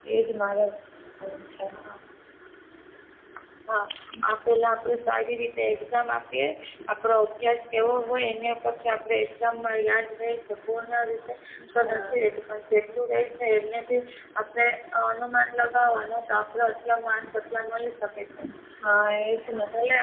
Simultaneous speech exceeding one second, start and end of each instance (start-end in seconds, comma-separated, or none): none